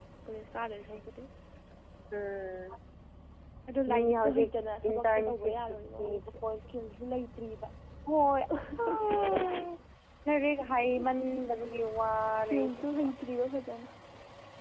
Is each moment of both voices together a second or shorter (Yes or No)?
No